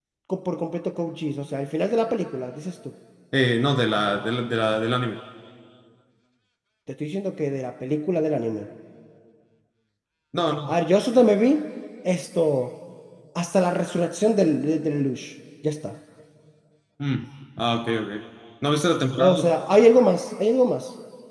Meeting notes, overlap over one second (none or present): none